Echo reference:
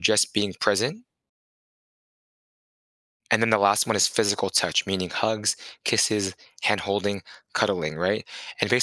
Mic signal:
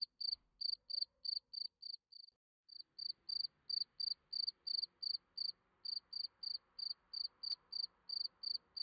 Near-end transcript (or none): none